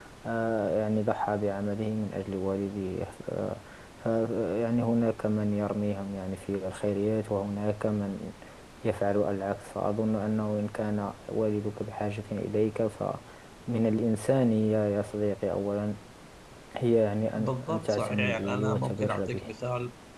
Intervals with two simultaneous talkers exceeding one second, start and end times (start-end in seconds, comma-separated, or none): 17.2-19.5